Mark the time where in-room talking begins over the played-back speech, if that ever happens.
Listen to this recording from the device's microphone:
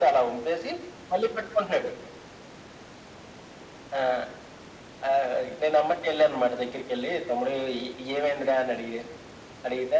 none

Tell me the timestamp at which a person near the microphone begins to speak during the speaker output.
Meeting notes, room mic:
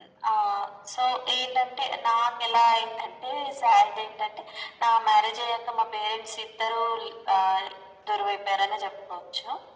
none

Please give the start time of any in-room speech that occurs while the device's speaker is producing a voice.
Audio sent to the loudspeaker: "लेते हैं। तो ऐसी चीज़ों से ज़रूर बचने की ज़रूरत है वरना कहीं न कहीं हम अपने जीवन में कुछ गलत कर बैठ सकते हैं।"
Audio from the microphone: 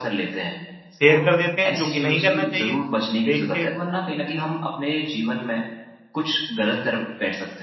0.9 s

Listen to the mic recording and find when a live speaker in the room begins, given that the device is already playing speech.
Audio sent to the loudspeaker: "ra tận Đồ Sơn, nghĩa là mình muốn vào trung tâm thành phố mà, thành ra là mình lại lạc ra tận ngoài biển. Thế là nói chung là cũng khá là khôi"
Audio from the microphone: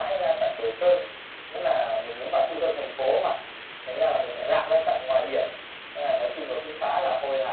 none

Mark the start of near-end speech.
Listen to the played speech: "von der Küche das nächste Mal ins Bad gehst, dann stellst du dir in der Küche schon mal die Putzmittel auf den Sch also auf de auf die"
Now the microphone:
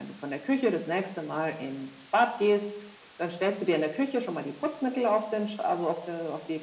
none

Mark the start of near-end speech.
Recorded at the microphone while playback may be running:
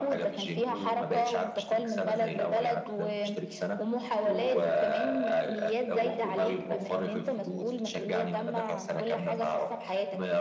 0.7 s

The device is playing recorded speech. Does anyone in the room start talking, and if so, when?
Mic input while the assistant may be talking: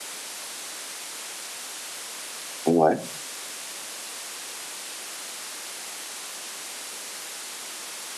2.7 s

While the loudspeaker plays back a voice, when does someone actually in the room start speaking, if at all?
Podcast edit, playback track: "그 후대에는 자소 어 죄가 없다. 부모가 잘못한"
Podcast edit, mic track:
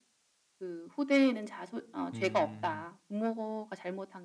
2.1 s

